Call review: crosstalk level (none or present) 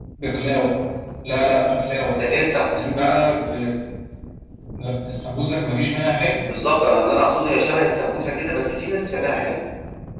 none